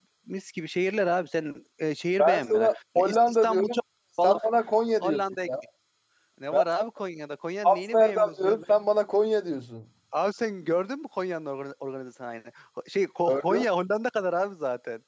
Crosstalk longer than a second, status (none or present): present